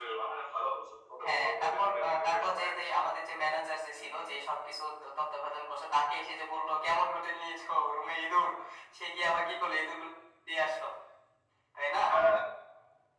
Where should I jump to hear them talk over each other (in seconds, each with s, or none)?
1.2 s